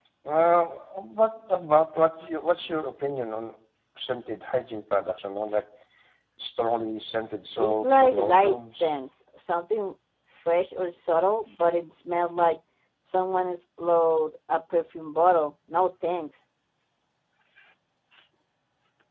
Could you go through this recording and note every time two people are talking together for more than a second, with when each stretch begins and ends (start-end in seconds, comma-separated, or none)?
7.6-9.0